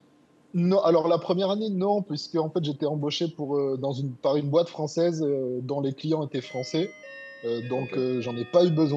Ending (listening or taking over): listening